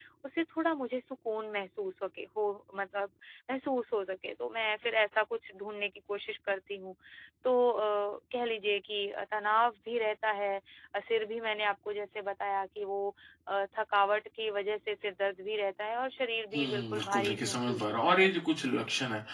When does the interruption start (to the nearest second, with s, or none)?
17 s